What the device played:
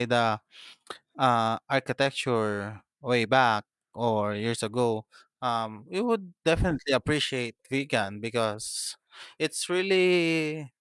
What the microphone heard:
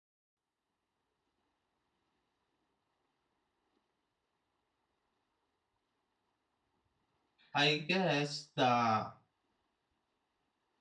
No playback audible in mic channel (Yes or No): Yes